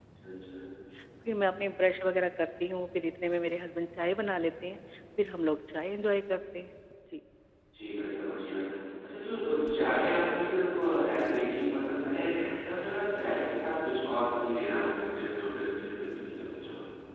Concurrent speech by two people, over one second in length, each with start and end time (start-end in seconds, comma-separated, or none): none